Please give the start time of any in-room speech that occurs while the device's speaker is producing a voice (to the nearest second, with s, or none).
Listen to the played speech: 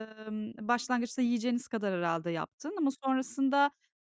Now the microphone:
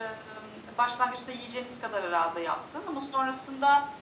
none